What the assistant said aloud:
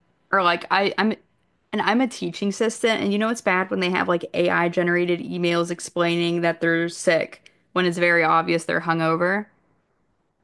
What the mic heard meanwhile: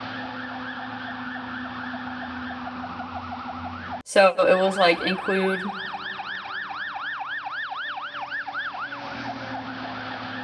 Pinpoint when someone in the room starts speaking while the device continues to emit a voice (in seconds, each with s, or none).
4.0 s